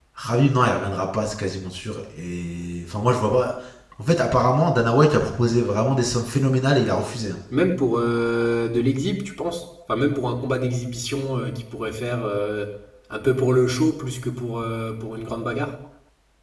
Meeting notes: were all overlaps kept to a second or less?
Yes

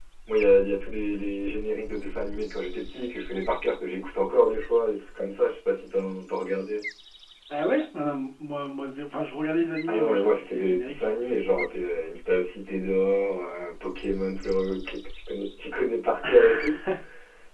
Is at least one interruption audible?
Yes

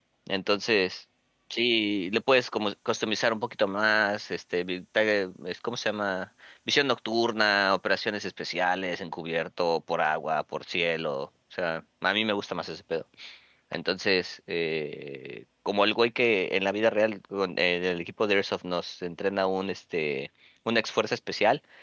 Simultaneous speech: No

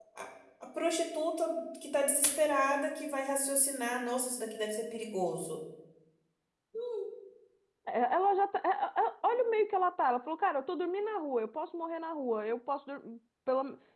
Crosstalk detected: No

